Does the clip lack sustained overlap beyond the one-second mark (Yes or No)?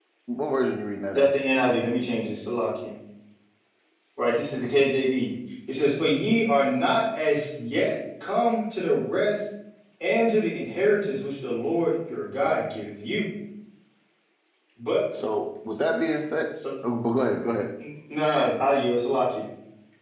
Yes